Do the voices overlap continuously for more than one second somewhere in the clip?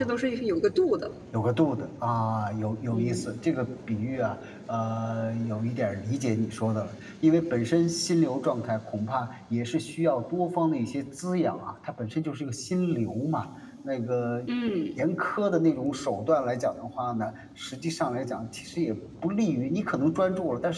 No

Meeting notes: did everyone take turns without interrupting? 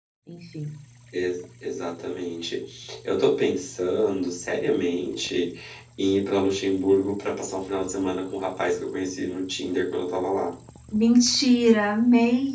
Yes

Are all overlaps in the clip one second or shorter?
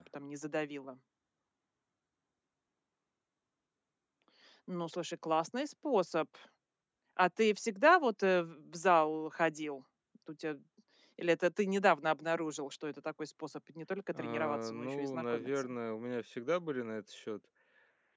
No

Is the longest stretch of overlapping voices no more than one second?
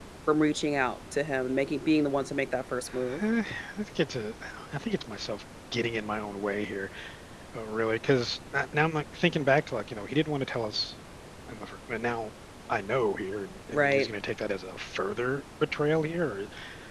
Yes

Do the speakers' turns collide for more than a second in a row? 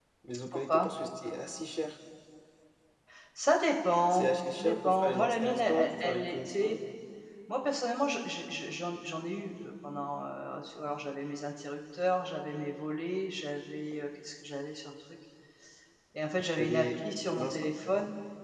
Yes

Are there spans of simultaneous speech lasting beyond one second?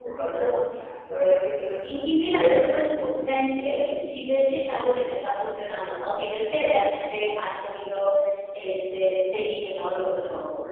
Yes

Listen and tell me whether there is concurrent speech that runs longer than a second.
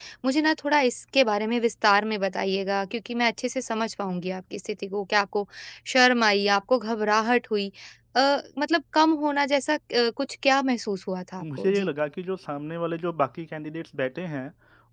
No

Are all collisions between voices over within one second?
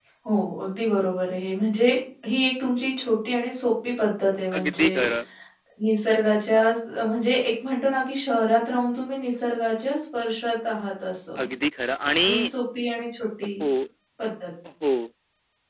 Yes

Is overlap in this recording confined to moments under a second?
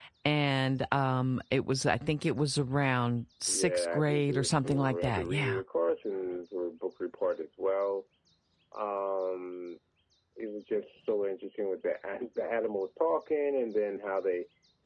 No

